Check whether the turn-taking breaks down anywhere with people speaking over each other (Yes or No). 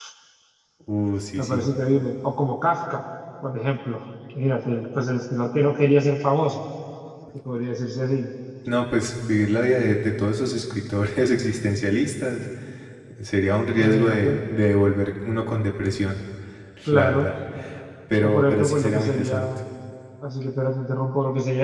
Yes